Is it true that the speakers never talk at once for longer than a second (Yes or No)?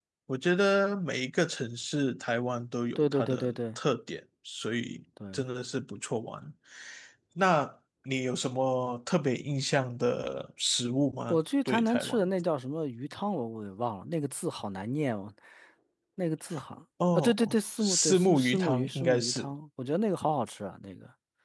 No